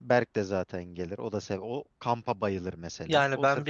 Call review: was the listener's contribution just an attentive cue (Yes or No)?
No